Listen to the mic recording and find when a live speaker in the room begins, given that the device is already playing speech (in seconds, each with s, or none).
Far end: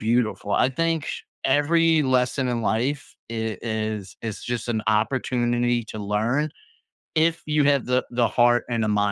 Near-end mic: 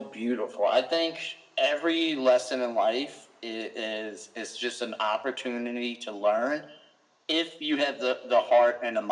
none